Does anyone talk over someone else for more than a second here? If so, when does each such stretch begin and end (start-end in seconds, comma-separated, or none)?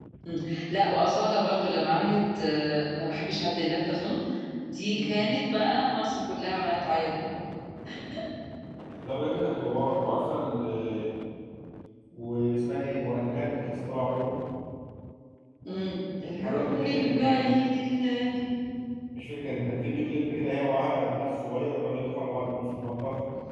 16.4-17.6